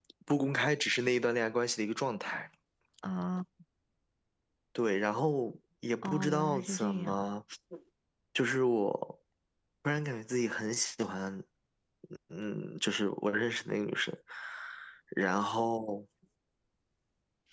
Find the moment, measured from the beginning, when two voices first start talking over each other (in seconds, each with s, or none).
6.0 s